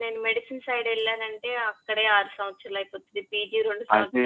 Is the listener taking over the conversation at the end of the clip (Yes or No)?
Yes